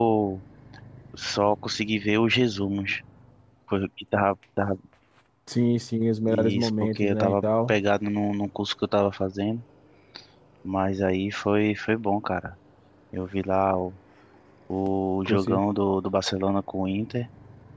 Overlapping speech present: Yes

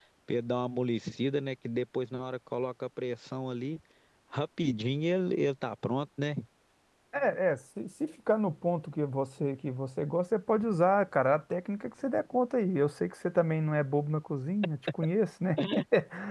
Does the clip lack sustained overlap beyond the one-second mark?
Yes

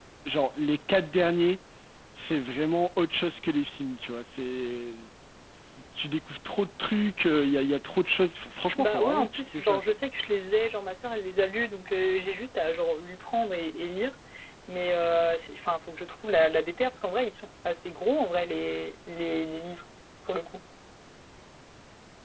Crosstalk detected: Yes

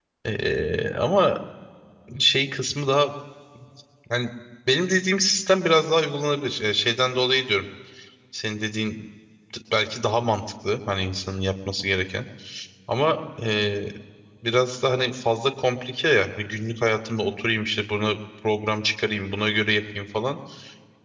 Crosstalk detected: No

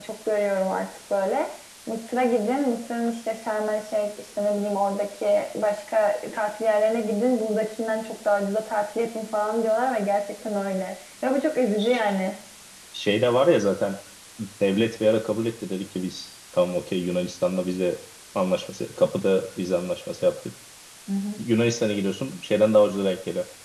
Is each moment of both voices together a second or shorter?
Yes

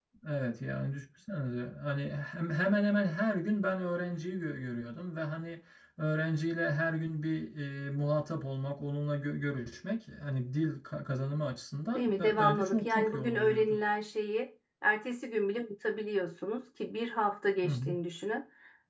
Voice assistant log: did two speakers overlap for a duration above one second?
Yes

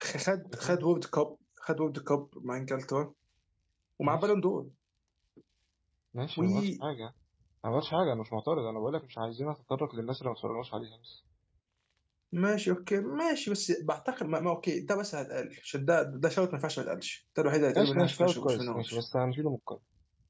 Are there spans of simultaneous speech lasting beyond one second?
Yes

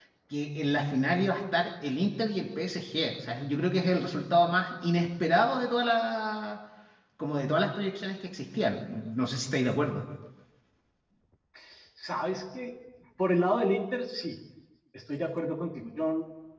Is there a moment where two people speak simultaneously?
No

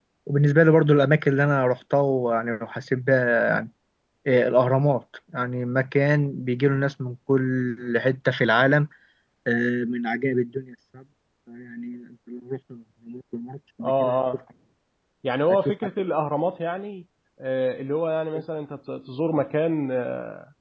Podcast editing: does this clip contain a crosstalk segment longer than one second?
No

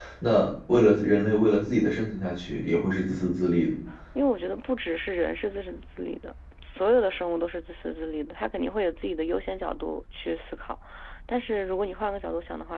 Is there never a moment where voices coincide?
Yes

